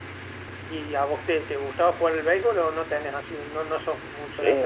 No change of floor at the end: No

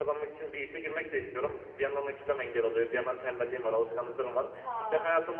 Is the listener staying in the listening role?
Yes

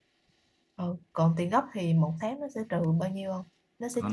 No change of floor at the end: No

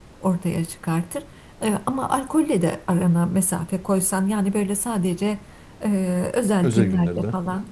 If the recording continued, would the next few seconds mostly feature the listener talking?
No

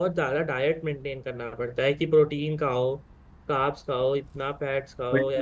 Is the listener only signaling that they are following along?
No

